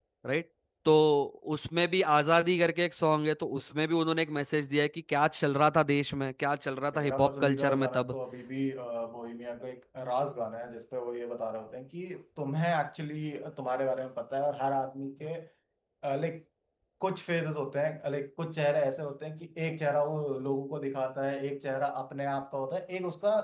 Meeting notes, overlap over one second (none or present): present